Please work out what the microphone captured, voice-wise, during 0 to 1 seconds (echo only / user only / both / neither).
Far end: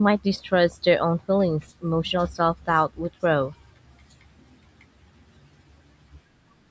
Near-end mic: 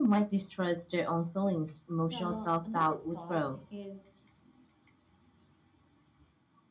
echo only